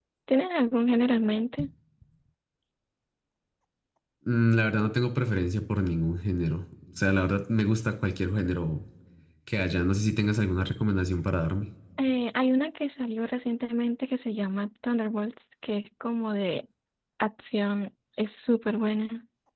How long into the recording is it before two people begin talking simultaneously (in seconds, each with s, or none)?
none